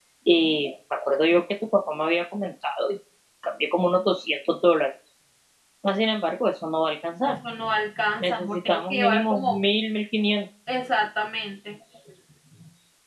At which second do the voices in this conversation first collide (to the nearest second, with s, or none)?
8 s